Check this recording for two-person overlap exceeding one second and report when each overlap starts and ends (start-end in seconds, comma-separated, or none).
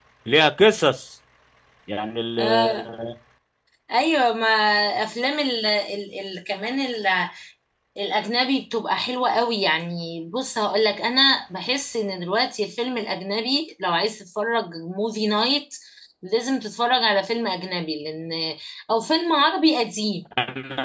none